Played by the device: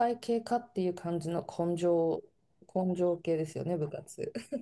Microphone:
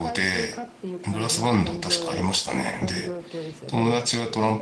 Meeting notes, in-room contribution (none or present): present